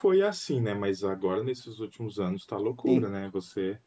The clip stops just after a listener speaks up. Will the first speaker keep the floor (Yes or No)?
Yes